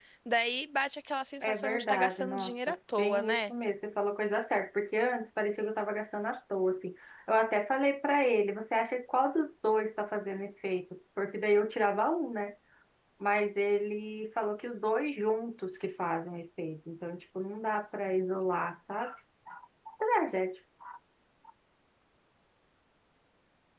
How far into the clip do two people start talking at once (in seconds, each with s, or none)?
1.4 s